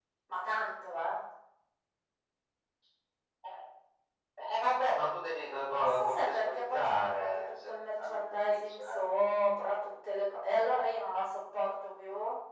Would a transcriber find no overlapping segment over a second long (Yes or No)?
No